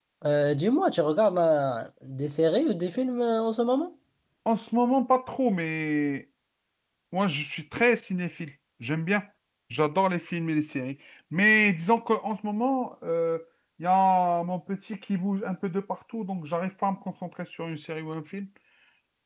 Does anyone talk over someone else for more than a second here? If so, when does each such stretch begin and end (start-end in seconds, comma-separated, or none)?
none